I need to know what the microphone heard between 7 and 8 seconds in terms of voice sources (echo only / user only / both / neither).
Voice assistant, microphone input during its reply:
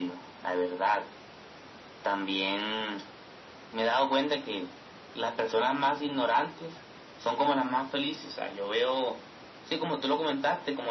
echo only